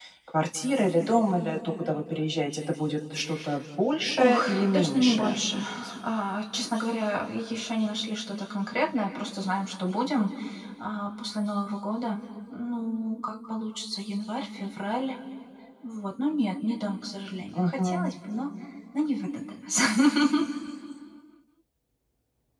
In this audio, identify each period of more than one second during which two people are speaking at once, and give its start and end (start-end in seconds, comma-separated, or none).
4.2-5.6